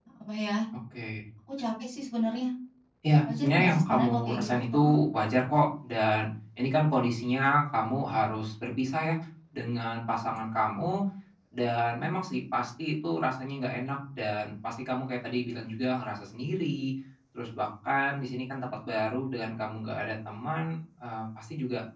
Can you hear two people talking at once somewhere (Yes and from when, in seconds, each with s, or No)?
Yes, from 3.3 s